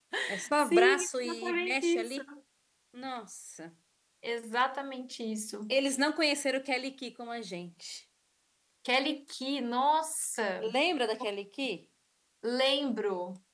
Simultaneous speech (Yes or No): Yes